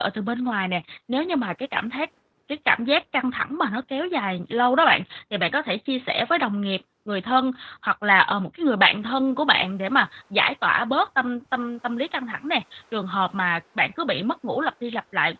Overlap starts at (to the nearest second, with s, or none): none